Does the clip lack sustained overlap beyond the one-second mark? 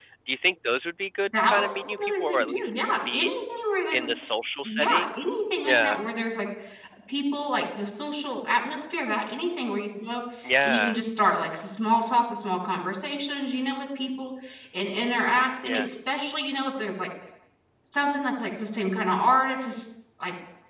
No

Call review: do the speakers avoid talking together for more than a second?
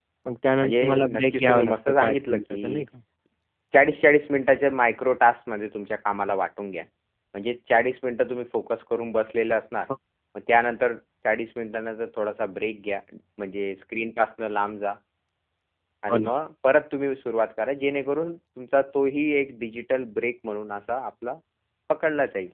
No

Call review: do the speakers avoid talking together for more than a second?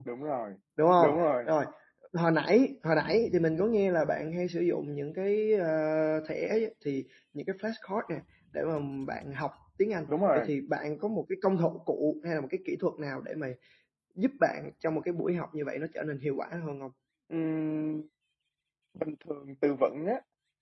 Yes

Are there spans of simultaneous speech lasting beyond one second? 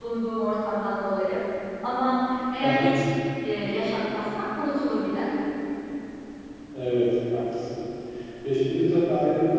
No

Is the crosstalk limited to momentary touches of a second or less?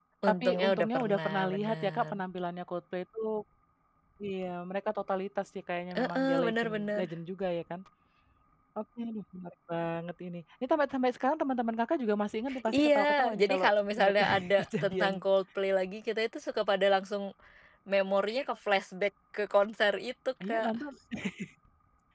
No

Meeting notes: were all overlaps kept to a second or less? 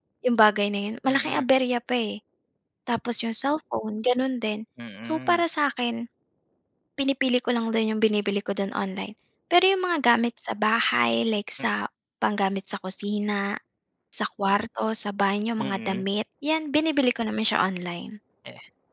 Yes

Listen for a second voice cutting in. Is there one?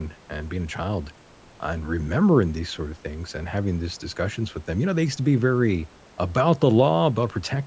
No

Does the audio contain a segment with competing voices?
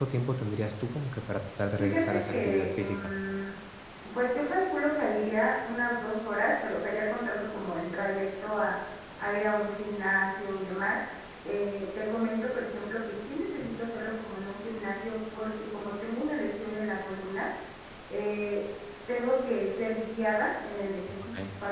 Yes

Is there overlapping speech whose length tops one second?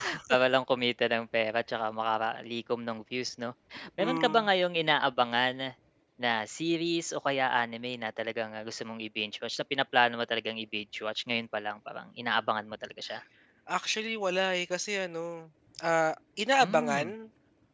No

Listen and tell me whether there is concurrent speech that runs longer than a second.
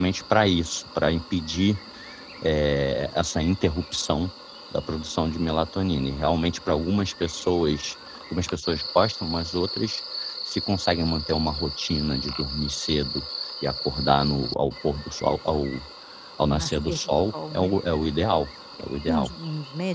Yes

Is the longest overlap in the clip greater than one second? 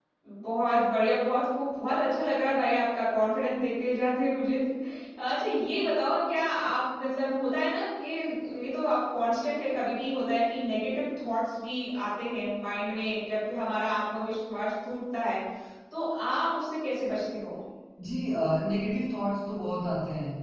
No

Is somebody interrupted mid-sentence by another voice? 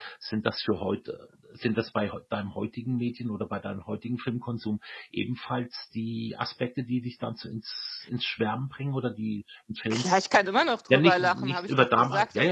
Yes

